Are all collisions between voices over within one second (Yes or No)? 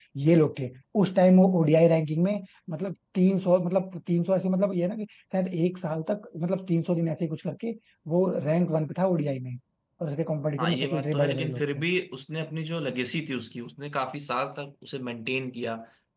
No